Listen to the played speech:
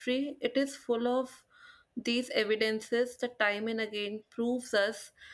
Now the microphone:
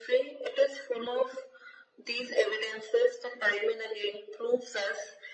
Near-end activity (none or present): none